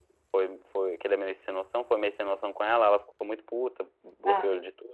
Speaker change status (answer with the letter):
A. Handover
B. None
B